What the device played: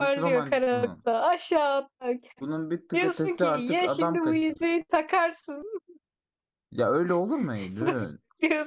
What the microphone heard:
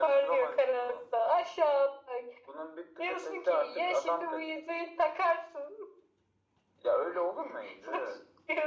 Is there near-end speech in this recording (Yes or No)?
No